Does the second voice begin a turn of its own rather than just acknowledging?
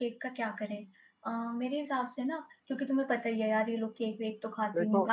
No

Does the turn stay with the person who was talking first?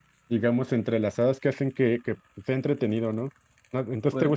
Yes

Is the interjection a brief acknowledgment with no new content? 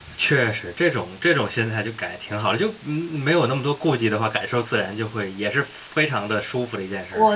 No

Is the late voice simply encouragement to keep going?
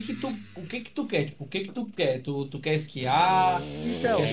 No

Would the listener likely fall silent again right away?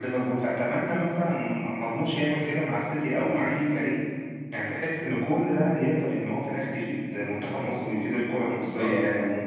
No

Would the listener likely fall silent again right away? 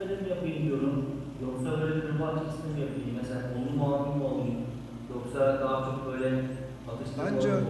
Yes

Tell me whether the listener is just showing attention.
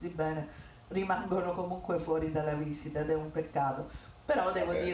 Yes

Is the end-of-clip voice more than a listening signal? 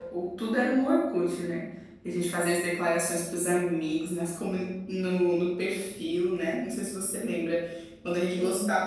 No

